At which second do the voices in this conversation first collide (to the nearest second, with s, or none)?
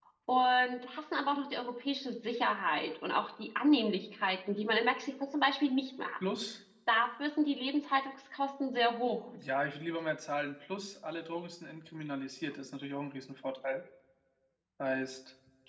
none